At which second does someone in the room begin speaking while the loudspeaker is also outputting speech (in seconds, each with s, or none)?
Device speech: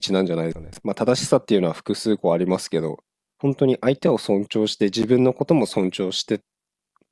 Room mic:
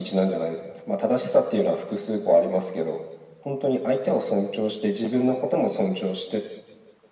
none